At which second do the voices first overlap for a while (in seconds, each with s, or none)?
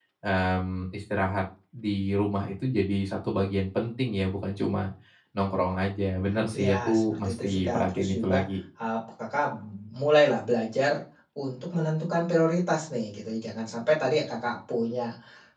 6.5 s